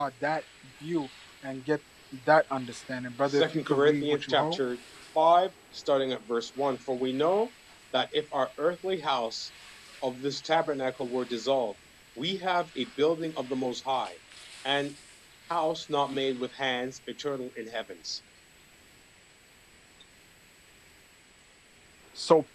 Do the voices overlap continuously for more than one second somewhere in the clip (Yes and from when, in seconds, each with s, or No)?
Yes, from 3.3 s